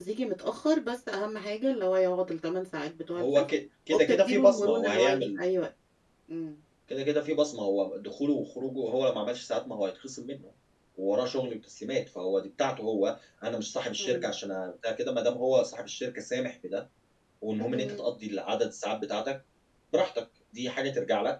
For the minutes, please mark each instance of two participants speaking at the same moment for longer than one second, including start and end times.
3.9-5.4

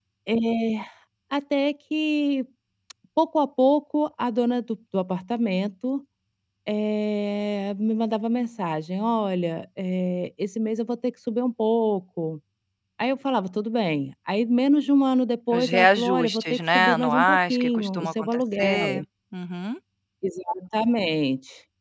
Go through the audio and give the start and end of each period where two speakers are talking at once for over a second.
15.5-19.0

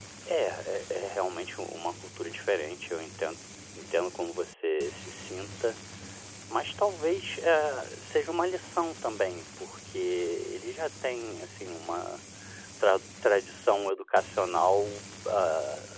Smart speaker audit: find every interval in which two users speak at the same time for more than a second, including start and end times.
none

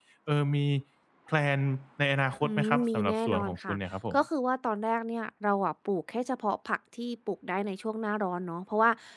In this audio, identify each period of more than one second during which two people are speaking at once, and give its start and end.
2.4-3.8

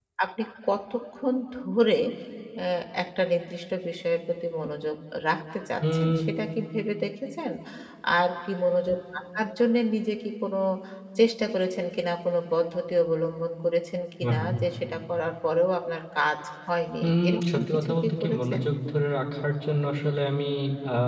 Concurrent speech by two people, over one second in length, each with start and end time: 17.0-18.6

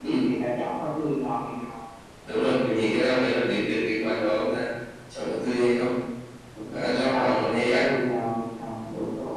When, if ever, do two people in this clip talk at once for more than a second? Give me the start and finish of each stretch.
6.7-7.9

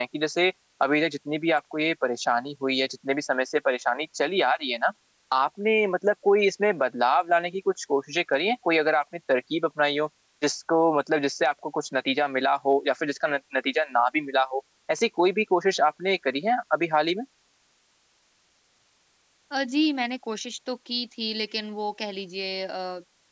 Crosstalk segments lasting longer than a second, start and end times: none

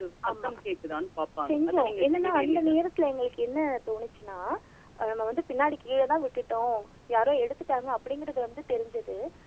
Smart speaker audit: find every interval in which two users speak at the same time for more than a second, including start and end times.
1.5-2.8

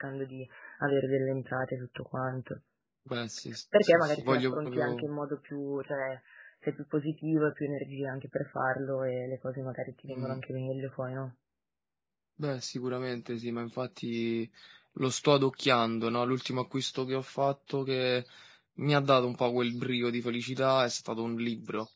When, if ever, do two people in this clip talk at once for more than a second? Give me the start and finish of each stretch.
3.8-5.1

